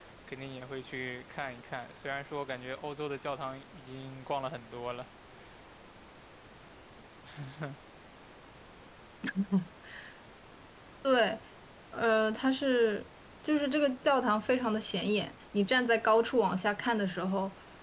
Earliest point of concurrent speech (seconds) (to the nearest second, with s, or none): none